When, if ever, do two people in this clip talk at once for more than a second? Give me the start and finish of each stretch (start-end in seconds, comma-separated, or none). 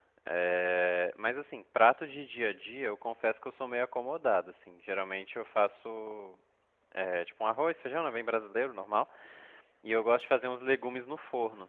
none